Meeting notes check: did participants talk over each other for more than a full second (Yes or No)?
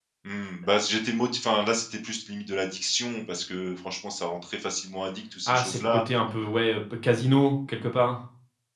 No